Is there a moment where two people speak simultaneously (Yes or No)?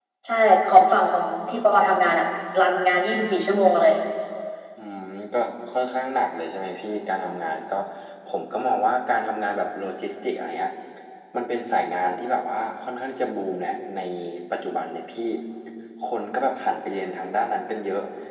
No